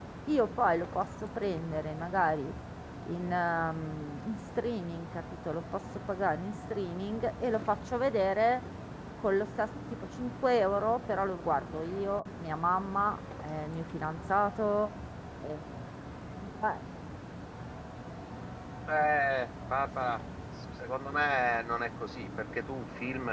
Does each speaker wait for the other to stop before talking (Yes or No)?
Yes